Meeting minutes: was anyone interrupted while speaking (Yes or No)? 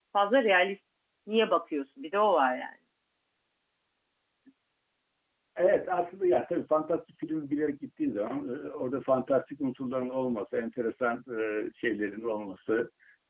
No